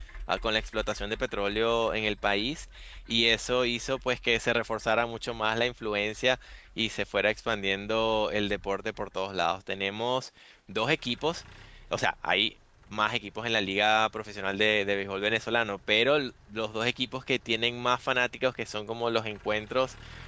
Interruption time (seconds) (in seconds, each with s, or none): none